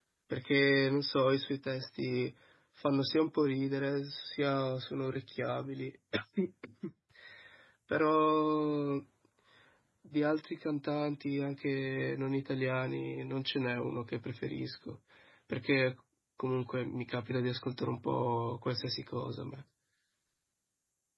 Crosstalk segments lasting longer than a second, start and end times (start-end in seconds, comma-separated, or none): none